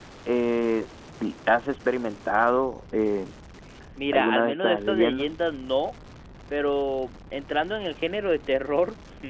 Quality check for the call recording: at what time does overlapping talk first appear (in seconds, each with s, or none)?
4.1 s